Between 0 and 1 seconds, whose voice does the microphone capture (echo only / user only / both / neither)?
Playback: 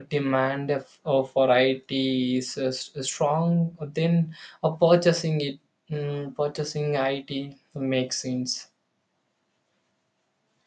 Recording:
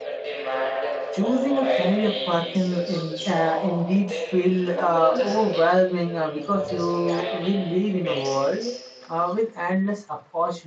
echo only